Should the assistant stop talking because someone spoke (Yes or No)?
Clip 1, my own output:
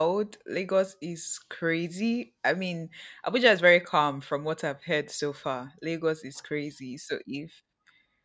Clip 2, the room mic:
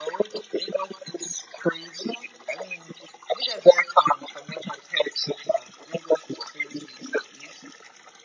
No